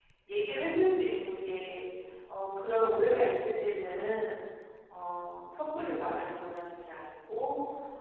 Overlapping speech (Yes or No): No